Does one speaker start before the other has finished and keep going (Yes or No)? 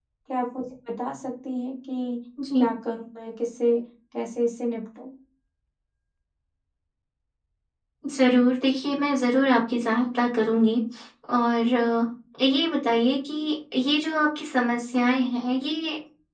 No